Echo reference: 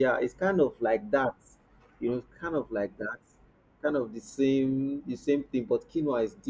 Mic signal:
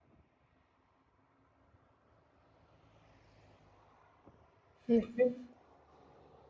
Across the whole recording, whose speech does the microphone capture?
user only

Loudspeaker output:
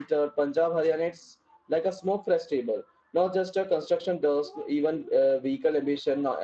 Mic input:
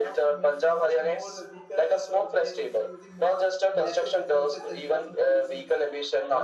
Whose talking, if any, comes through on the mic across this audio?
both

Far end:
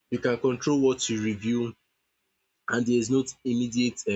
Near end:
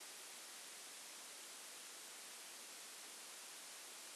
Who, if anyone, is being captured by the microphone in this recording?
neither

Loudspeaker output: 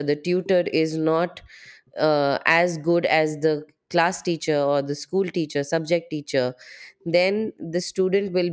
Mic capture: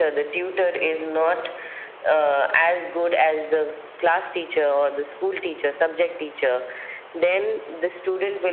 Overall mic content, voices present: echo only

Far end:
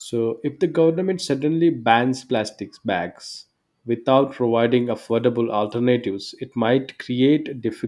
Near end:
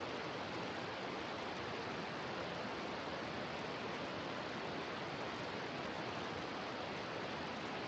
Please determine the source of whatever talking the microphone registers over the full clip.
neither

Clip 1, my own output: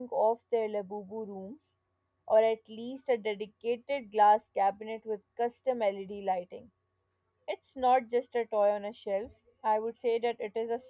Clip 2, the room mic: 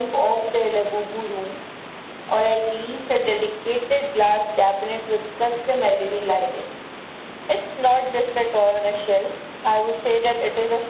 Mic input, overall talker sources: echo only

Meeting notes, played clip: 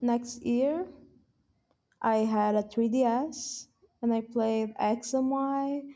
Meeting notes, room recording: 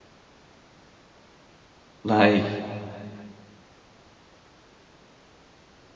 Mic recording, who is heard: user only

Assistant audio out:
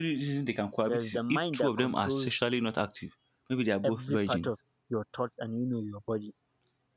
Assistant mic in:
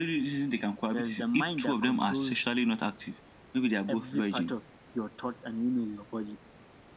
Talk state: echo only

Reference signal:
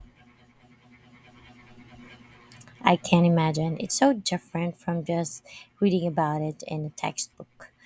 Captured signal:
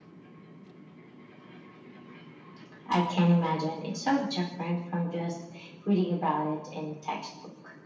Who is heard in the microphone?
echo only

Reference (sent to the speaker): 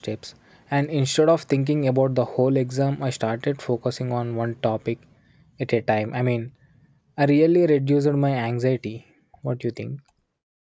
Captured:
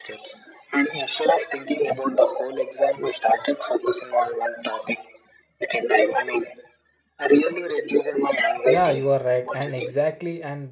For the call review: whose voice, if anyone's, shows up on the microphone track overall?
both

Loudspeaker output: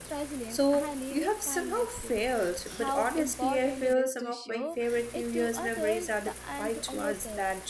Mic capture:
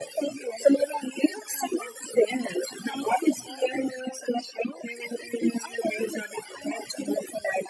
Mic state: echo only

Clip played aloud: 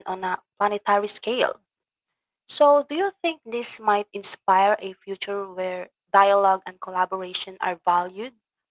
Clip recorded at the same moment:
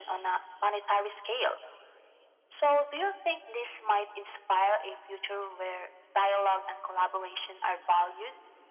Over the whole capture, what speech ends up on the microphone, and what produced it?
echo only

